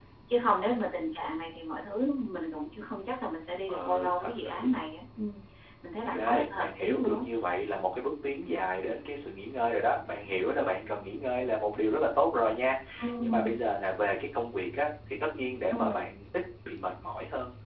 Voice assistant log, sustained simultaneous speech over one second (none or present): present